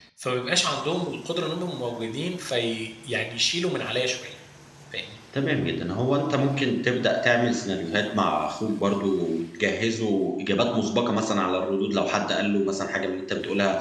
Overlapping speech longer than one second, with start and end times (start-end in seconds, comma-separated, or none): none